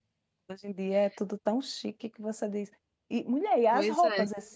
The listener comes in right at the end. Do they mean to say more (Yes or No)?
No